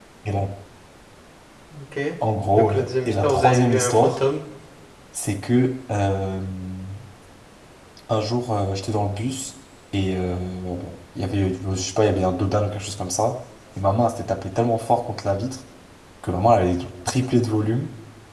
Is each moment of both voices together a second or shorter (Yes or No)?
No